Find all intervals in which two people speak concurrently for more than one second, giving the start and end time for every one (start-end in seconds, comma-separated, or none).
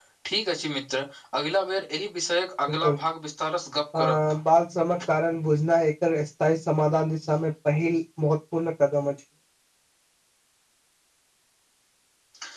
none